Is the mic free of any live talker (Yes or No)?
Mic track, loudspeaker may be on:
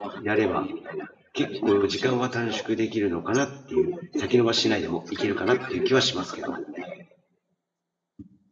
No